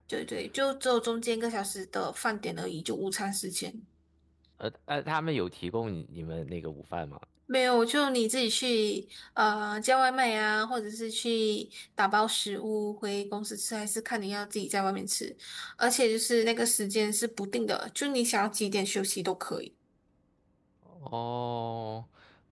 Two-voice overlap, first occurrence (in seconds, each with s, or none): none